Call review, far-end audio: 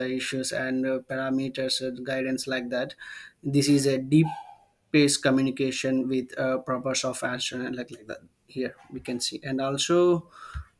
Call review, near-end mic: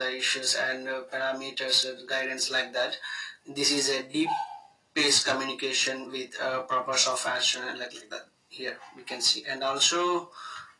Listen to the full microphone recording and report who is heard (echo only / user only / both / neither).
echo only